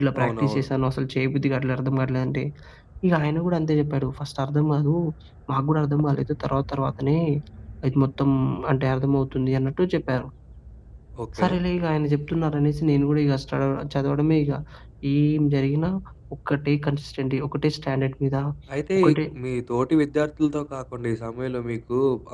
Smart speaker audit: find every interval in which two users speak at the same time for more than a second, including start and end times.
none

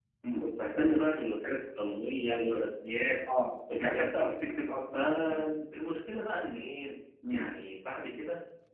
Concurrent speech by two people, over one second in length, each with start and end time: none

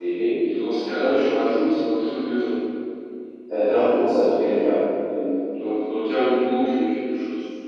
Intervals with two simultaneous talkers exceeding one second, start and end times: none

